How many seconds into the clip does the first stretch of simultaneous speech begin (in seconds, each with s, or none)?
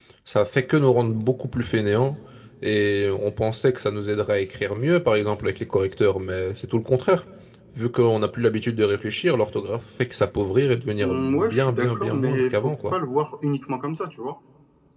11.0 s